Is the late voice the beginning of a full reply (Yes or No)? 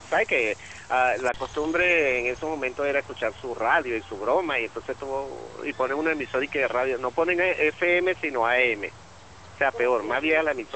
No